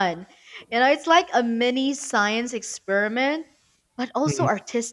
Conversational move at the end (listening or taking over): listening